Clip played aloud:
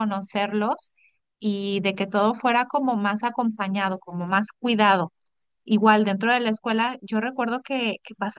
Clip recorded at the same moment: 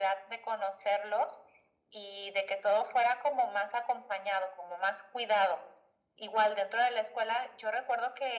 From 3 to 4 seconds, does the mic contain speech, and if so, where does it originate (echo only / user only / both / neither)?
echo only